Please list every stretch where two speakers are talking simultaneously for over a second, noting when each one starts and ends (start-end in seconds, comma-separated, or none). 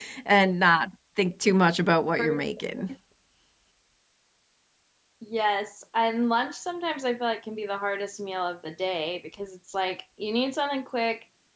none